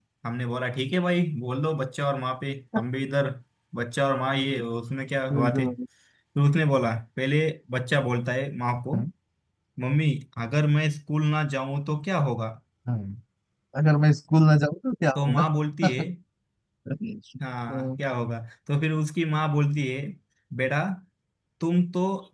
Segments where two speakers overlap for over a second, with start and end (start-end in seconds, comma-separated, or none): none